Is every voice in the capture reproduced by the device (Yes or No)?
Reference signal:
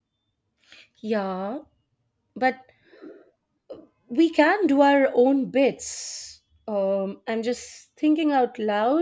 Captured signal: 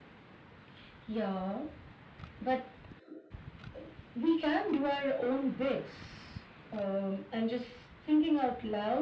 Yes